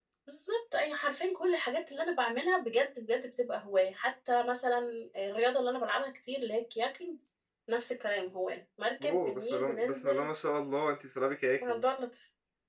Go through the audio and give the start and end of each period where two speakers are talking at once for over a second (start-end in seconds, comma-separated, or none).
9.0-10.3